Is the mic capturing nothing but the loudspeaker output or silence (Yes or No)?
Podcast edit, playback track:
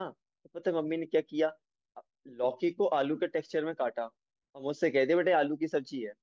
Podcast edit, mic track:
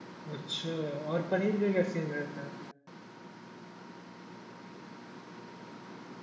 No